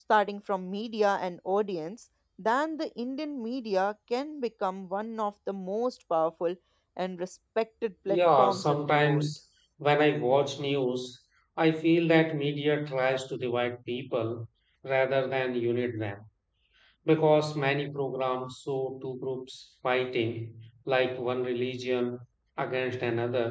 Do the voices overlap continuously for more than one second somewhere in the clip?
Yes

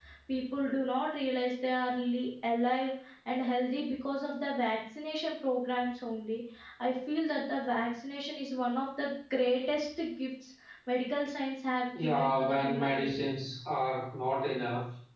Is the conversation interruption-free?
No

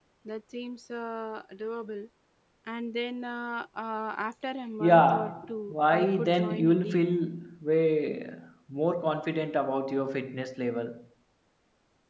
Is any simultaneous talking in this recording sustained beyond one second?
Yes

